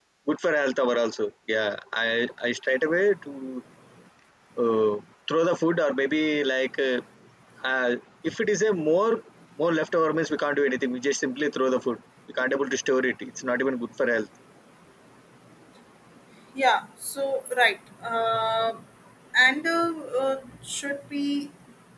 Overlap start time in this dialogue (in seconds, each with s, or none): none